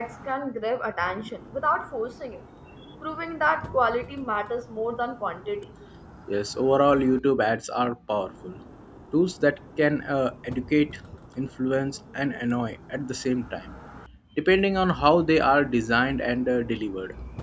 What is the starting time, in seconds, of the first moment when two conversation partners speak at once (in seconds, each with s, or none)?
none